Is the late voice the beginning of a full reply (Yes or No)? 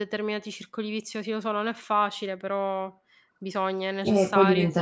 Yes